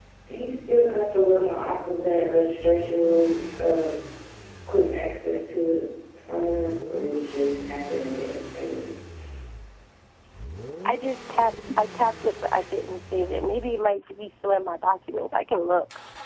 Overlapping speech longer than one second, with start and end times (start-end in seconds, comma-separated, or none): none